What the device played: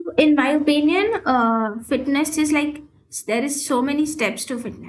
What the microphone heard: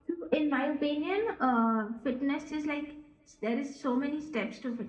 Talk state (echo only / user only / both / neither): echo only